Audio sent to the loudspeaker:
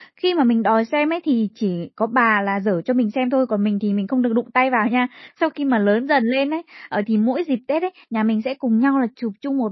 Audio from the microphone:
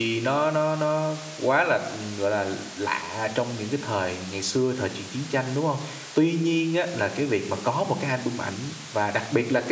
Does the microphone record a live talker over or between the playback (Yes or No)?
Yes